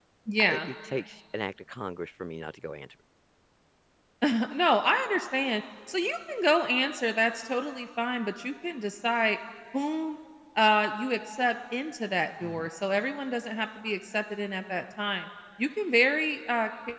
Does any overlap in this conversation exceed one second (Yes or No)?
No